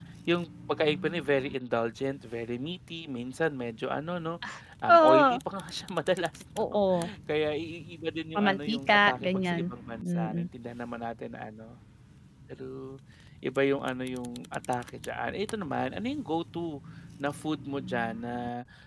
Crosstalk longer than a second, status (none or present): present